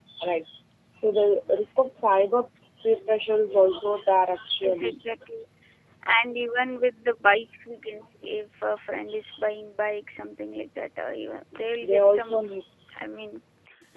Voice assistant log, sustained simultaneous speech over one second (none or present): none